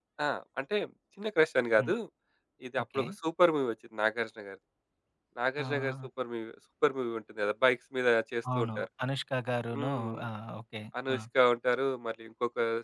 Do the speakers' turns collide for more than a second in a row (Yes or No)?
No